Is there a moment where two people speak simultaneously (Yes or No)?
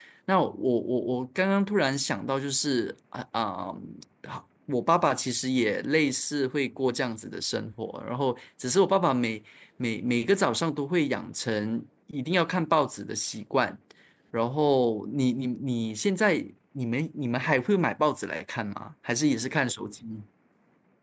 No